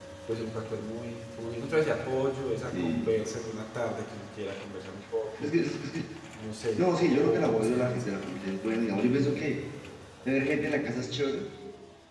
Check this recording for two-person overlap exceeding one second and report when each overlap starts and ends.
6.8-8.2

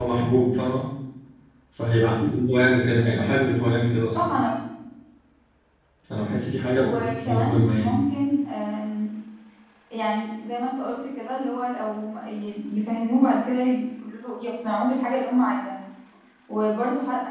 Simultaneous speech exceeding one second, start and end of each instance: 6.8-8.0

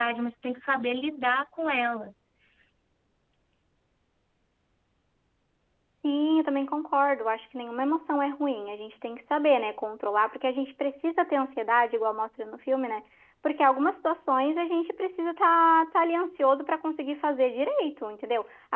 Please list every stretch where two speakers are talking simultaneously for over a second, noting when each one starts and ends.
none

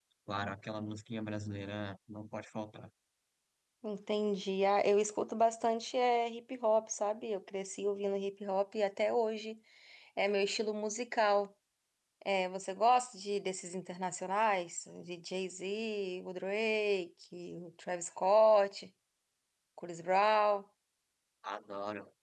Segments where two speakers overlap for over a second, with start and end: none

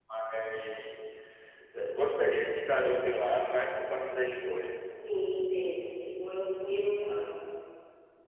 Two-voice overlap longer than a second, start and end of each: none

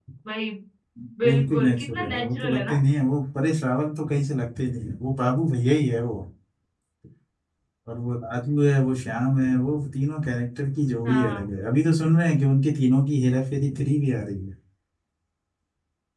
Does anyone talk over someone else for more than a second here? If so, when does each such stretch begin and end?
1.2-2.7

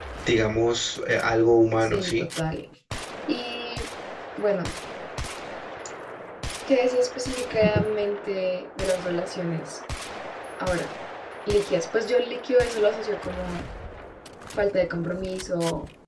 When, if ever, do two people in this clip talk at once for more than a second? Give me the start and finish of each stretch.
none

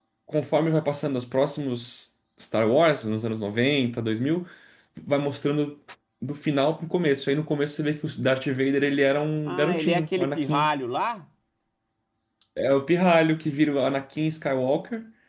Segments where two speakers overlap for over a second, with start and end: 9.5-10.7

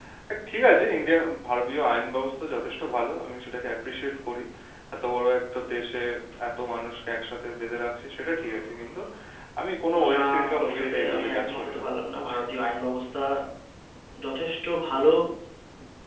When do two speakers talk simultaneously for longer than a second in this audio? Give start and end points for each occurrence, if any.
10.1-11.8

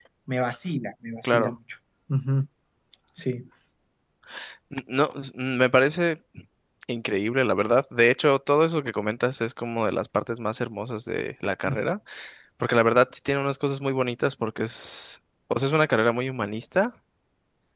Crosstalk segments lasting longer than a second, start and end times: none

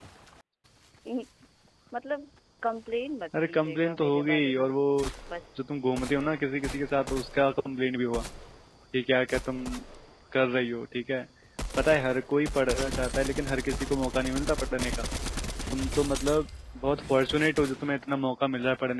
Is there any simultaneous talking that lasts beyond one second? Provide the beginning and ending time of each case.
3.5-4.7

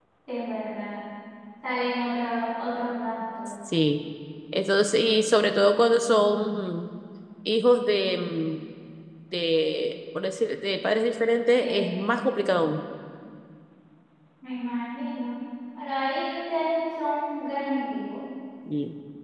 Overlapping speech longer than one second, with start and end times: none

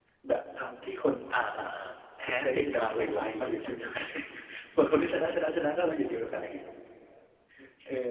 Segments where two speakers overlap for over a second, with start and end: 2.2-3.7

